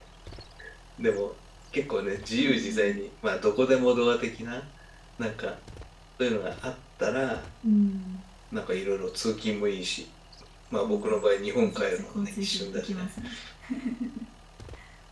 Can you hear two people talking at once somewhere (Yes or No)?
Yes